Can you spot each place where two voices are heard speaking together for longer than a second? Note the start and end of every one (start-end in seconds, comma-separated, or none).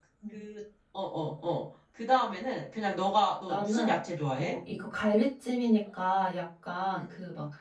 none